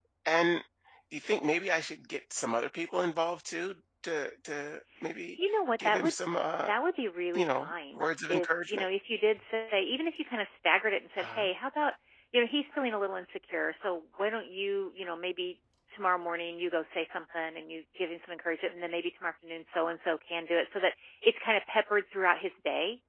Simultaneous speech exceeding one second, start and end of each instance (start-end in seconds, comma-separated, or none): 7.4-8.8